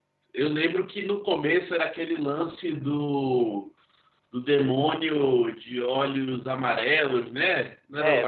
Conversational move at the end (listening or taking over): taking over